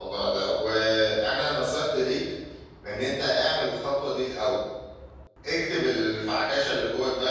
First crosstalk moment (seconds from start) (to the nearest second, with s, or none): none